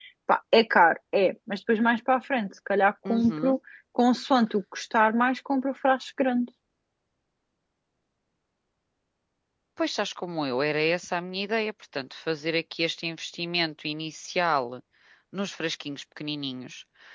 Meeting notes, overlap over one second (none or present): none